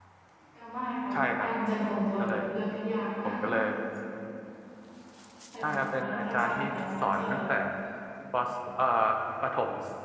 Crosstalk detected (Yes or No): Yes